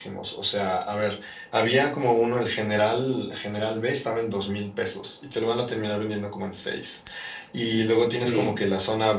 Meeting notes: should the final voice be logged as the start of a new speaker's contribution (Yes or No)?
No